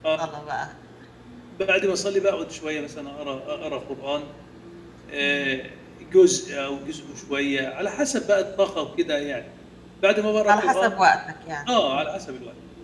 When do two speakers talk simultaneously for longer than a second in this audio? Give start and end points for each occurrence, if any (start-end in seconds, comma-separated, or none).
none